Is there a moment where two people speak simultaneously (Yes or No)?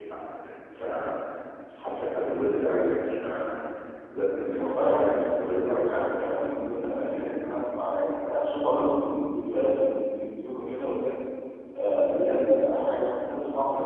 Yes